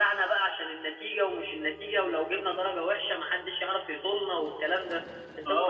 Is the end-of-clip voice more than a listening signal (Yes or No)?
Yes